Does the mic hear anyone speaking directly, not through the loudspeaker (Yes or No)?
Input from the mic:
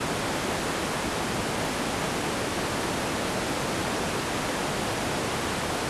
No